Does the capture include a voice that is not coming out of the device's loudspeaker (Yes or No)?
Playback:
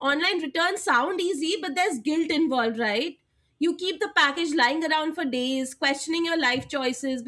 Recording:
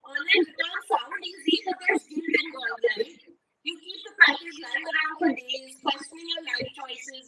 No